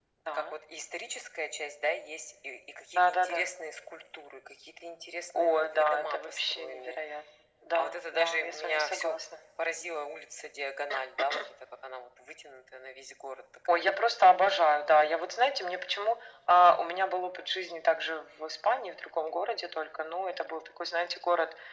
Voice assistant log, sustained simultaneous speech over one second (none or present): present